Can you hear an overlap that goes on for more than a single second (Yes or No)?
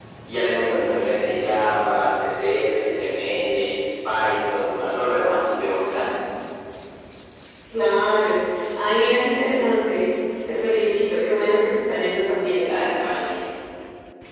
No